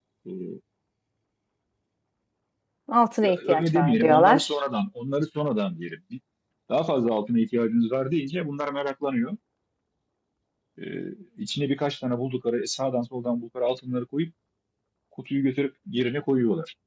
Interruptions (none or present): present